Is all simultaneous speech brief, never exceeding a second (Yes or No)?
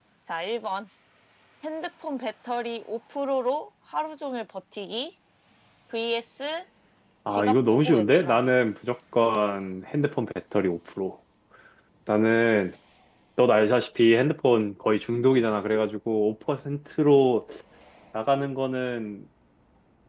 No